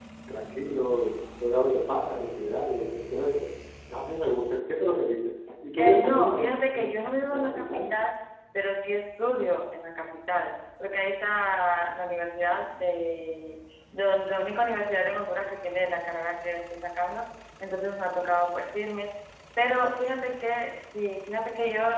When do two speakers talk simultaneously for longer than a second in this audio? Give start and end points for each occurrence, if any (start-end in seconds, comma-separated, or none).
5.8-7.8